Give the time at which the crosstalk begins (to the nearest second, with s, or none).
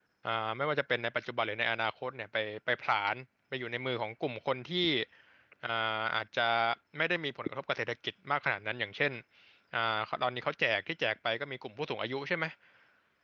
none